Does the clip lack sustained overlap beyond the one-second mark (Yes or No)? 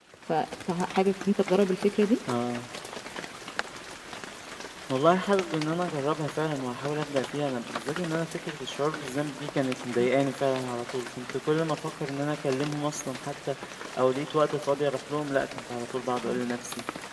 Yes